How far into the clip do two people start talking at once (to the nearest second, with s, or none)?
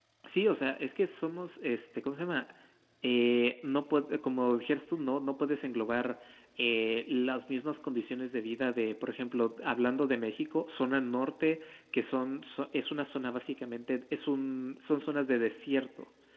none